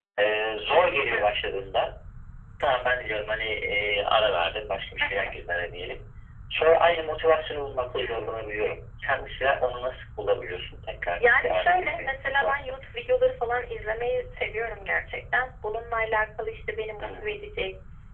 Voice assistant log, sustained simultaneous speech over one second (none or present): present